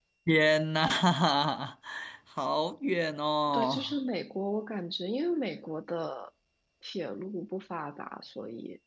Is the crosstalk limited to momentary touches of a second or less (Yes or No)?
Yes